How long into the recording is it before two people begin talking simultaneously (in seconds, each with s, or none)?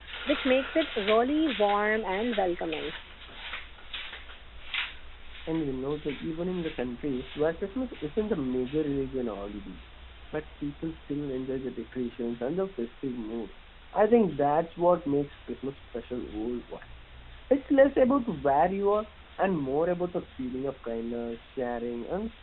none